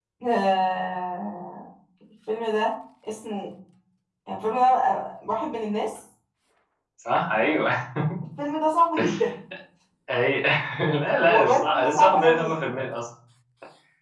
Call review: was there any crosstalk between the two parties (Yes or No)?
Yes